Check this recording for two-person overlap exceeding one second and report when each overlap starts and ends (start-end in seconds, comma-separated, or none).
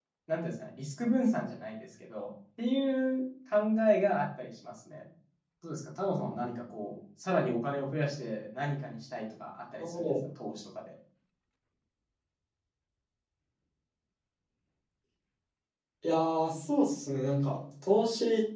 none